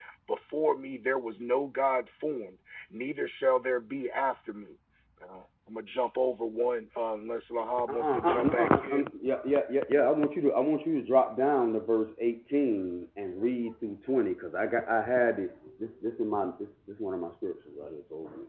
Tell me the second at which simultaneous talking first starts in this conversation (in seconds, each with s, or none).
7.8 s